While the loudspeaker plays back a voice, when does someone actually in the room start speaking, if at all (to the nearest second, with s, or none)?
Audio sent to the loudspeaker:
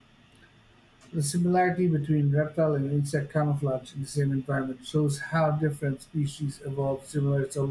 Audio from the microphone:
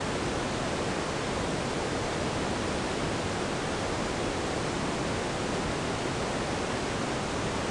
none